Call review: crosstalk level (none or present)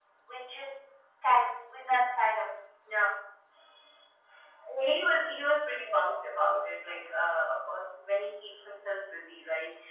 none